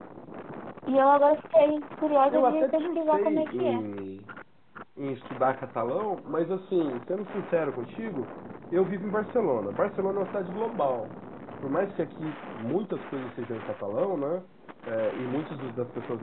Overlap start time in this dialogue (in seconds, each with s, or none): 2.3 s